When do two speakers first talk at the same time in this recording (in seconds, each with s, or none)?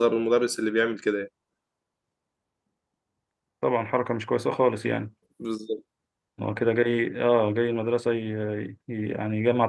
none